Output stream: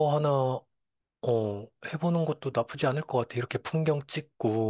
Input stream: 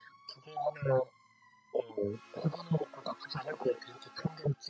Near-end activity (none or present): none